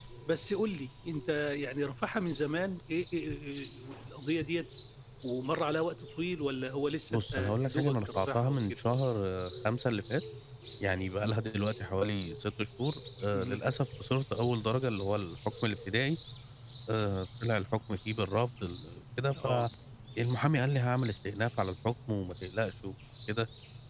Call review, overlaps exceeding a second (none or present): present